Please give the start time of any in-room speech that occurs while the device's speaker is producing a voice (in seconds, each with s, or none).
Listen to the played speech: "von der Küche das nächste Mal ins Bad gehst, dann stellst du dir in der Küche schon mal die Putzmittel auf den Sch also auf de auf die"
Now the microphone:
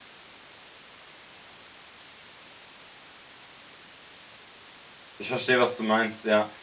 5.2 s